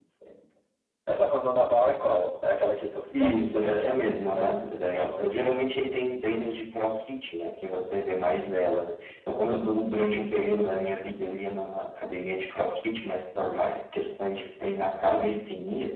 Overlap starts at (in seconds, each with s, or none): 3.1 s